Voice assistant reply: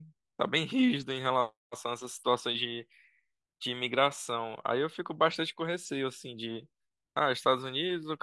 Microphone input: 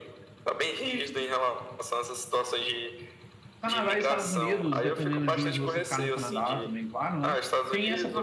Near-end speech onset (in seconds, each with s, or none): 3.6 s